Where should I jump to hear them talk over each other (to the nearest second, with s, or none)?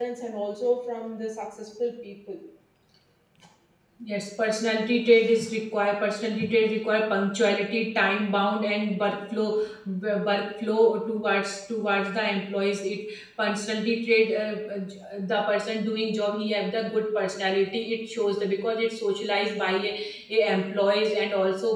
none